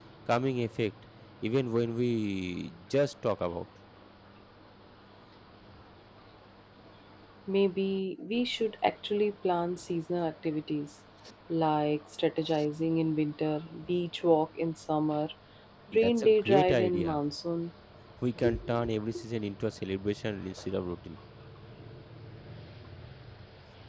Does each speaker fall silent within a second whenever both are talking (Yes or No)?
No